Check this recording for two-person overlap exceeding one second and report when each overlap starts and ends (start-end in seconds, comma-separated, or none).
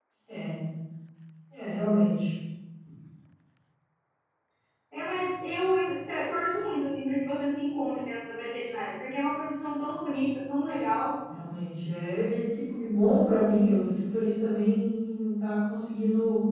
none